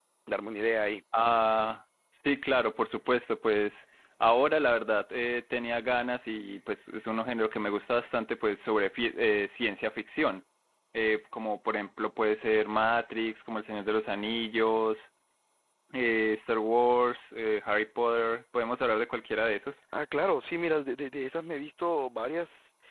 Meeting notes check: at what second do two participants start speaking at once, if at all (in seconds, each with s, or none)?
none